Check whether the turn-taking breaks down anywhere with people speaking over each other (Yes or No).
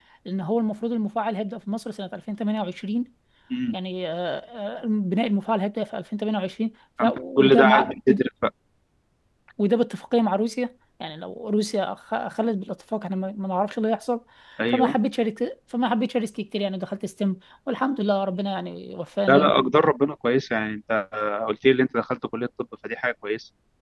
Yes